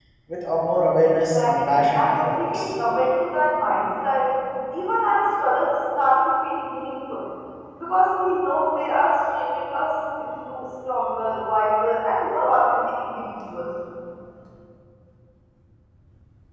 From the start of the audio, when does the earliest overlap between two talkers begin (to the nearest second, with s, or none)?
1 s